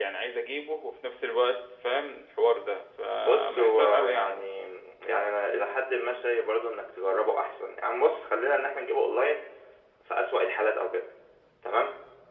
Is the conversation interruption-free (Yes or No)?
No